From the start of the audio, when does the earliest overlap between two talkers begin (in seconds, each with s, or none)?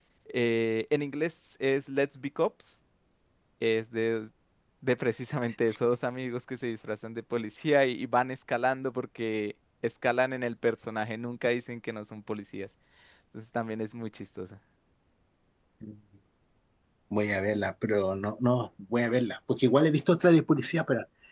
none